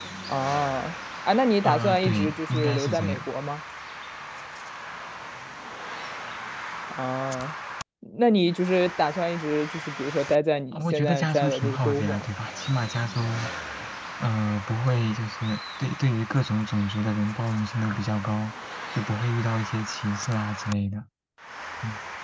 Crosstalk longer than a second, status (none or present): present